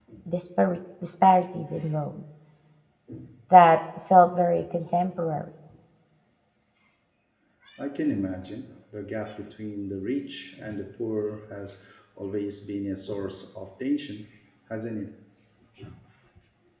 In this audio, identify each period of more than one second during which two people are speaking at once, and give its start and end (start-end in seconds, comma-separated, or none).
none